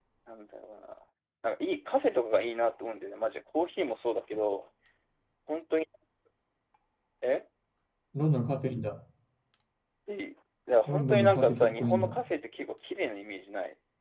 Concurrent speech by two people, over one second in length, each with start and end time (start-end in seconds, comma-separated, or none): 10.9-12.2